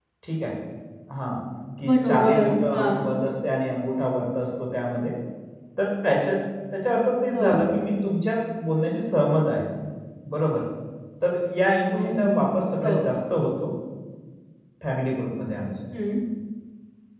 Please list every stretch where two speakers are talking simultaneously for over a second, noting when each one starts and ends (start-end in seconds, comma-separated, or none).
1.8-3.0